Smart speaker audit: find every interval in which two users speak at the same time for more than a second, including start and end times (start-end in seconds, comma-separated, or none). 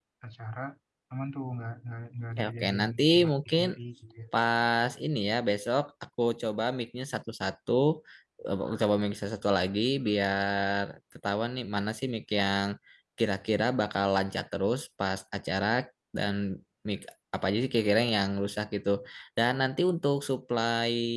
2.4-3.6